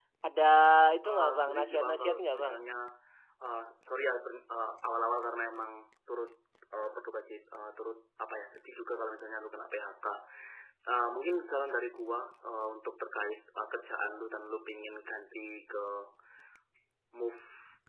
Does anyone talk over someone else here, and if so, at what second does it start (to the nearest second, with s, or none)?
1 s